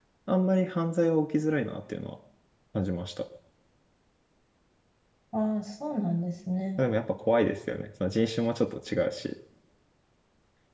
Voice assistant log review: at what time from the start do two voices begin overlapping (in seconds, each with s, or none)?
none